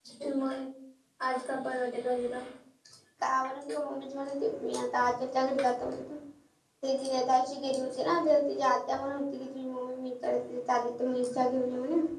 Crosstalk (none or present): none